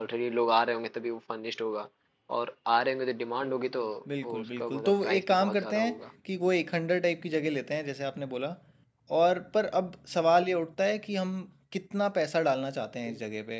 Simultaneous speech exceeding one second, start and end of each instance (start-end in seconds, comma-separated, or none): 4.2-6.0